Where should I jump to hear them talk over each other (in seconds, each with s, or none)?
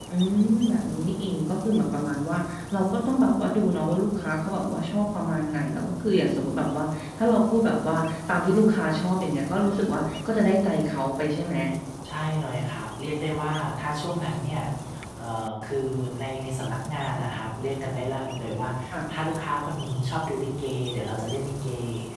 none